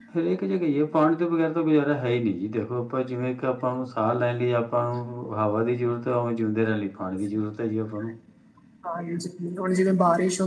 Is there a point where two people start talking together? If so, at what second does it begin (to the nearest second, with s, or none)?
none